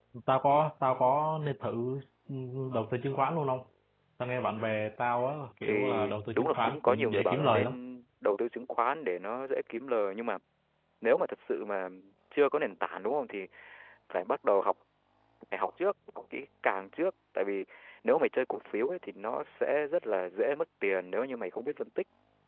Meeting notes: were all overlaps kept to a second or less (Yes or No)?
No